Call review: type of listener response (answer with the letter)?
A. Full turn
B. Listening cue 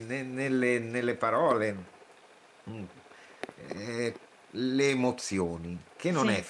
B